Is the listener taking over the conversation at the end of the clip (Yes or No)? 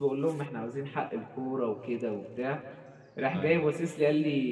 No